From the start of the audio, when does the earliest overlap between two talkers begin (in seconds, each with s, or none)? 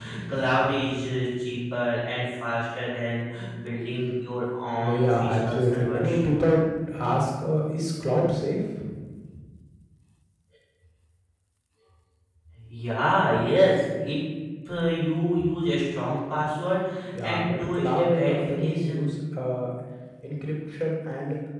4.8 s